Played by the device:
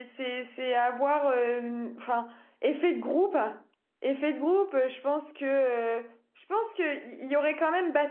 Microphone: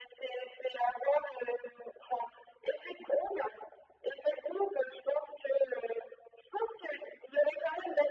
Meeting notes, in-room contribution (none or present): none